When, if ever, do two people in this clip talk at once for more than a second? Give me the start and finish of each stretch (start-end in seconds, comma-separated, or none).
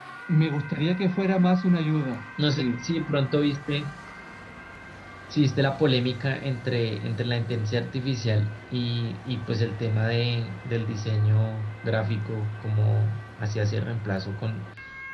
none